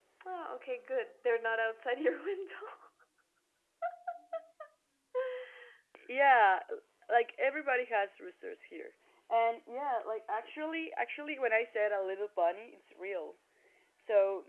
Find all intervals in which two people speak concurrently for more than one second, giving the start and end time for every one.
none

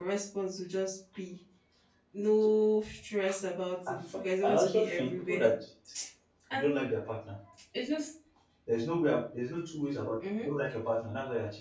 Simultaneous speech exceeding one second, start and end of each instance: 3.9-5.5

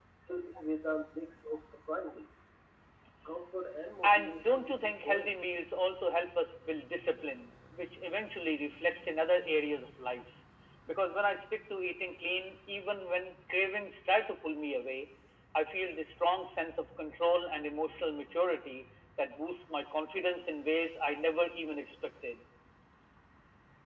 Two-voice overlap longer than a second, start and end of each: 4.0-5.3

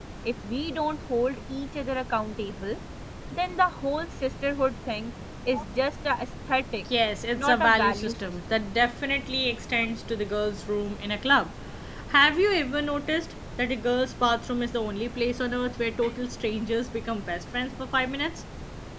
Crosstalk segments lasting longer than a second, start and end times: 7.4-8.6

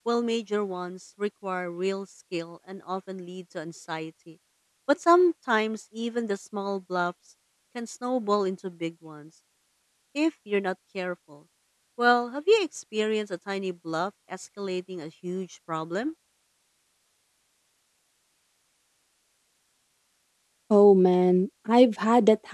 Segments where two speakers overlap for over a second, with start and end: none

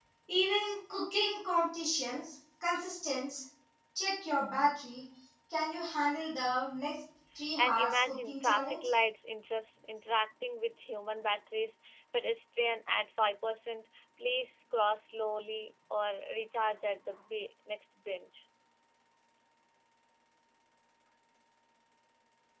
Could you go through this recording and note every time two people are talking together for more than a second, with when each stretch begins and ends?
7.6-8.9

